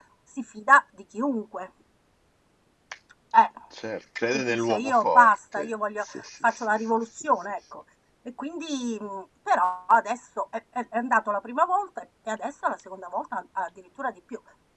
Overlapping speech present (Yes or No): Yes